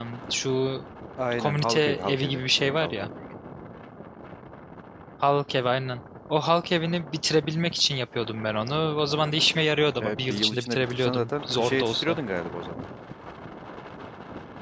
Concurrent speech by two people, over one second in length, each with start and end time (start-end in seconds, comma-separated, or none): 1.4-3.1, 10.0-12.2